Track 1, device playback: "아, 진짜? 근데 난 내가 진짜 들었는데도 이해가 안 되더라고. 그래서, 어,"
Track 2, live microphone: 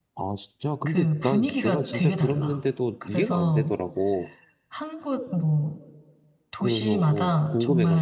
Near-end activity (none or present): present